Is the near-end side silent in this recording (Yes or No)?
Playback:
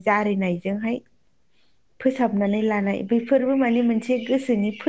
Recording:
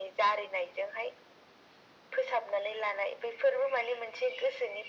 Yes